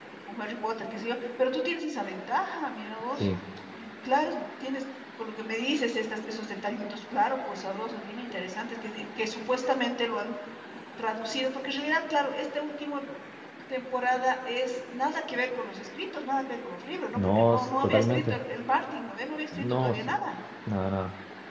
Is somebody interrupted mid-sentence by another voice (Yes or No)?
Yes